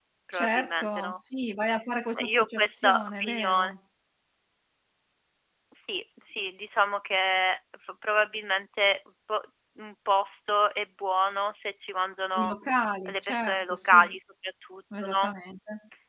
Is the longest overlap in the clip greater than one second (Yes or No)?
Yes